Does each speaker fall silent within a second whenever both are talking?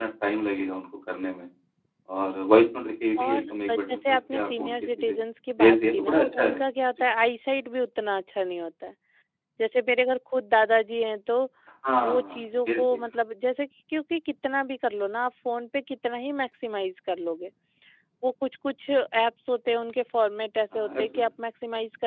No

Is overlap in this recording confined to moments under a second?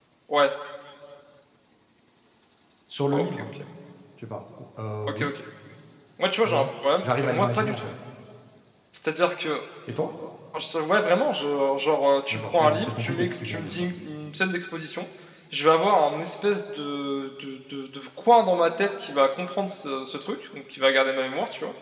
No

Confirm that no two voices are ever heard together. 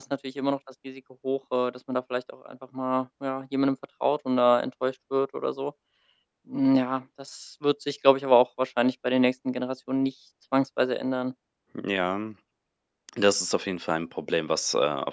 Yes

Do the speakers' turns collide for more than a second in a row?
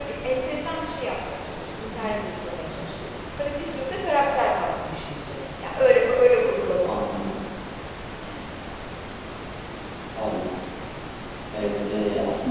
No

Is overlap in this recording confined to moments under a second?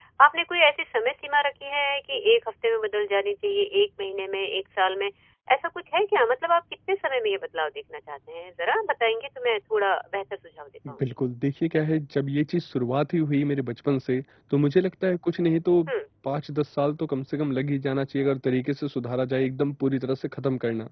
Yes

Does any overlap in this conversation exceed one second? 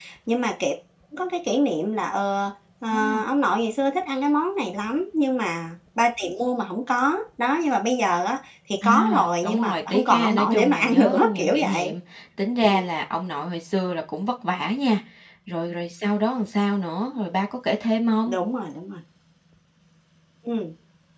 Yes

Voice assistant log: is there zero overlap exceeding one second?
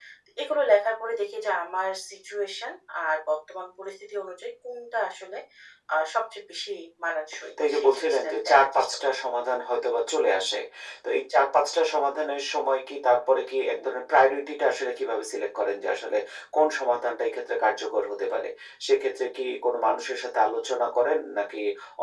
No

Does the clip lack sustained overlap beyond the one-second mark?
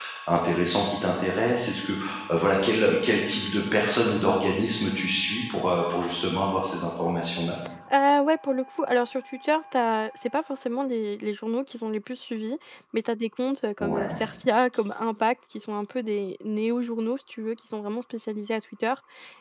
Yes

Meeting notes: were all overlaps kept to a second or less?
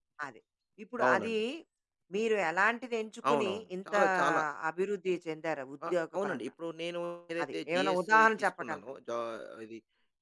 No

